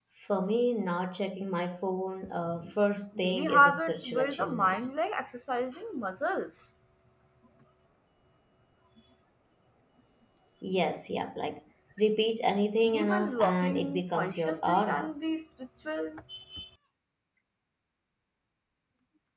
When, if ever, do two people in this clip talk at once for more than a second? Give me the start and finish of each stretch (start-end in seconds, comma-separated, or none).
3.2-4.8, 12.9-15.1